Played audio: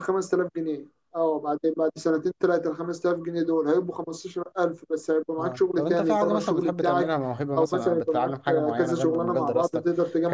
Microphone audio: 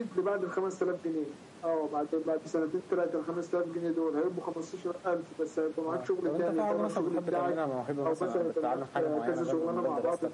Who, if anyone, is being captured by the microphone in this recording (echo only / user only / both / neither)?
echo only